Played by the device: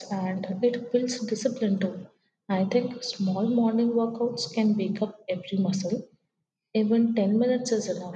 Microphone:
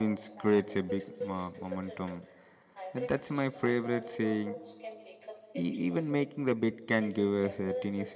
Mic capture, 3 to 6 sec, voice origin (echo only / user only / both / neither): both